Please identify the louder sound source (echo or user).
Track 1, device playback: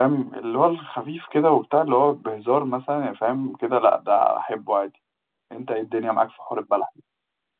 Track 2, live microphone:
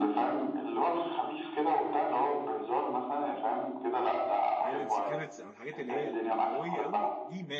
echo